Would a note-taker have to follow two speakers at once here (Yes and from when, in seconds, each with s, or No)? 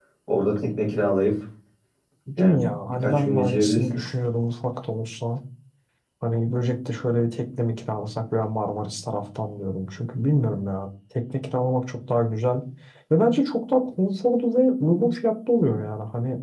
Yes, from 2.4 s